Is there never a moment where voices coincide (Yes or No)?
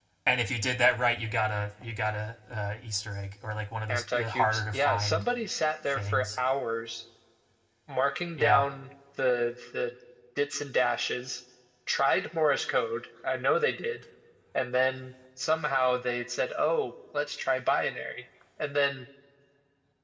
No